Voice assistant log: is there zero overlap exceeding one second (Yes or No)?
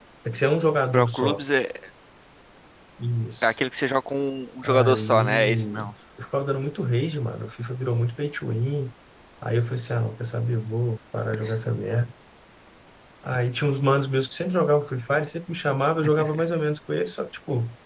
No